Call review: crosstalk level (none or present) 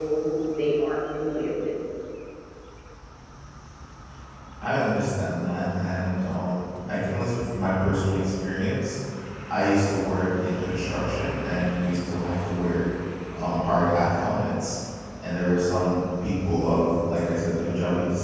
none